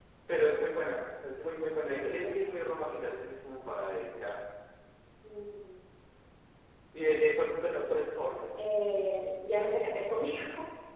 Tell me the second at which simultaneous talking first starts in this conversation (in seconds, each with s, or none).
none